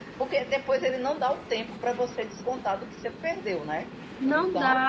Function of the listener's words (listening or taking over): taking over